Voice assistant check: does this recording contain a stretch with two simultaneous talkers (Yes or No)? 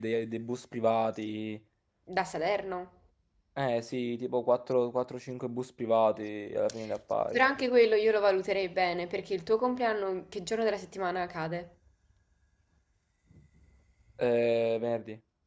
No